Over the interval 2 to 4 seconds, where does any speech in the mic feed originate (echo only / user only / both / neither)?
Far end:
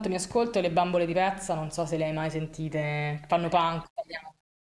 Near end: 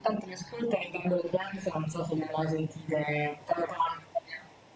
echo only